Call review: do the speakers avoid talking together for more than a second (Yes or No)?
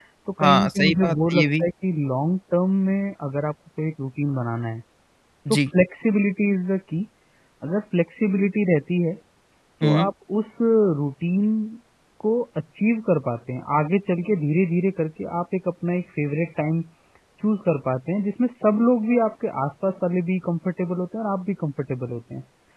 No